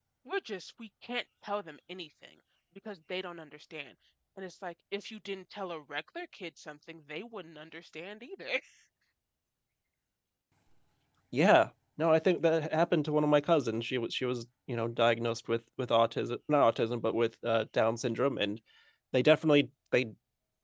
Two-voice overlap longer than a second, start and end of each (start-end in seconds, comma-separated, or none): none